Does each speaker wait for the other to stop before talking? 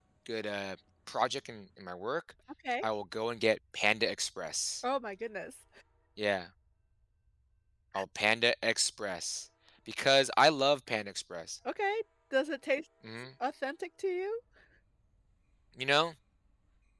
Yes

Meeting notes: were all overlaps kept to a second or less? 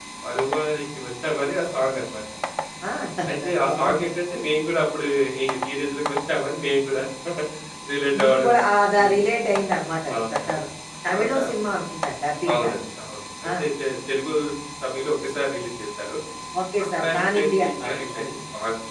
No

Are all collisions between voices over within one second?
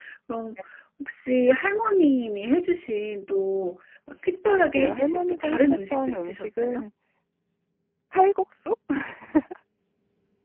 No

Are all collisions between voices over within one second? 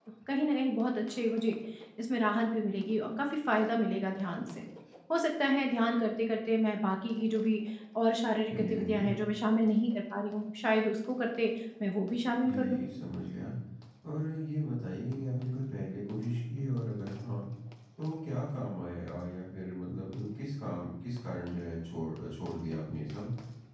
Yes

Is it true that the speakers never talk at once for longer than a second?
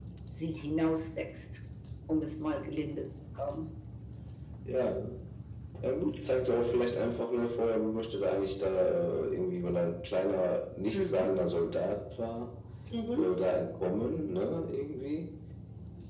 Yes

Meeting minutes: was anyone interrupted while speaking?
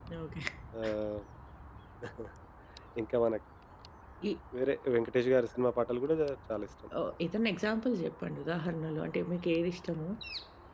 No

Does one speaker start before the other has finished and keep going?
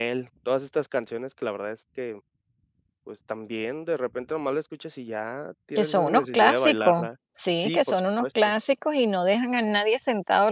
Yes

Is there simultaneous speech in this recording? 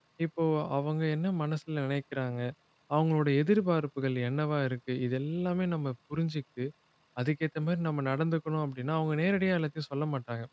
No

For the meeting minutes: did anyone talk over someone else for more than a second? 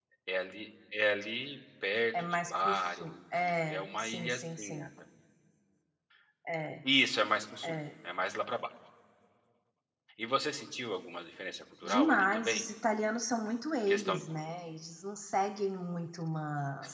Yes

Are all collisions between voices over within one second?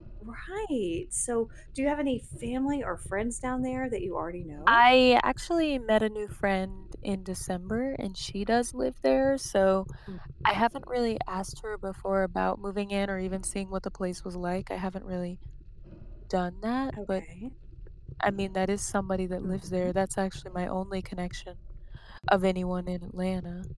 Yes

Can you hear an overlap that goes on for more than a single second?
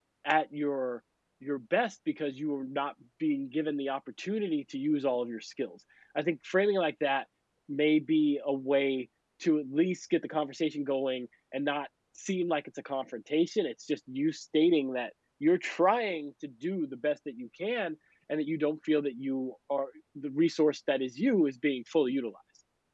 No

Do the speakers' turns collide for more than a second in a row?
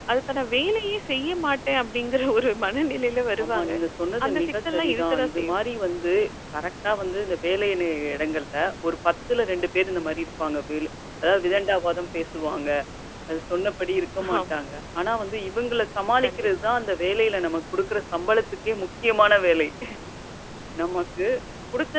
Yes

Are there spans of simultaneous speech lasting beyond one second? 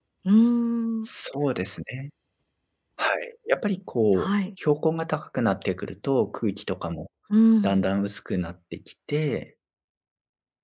No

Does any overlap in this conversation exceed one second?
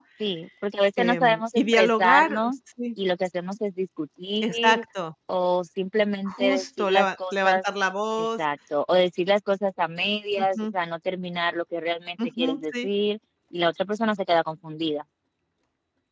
Yes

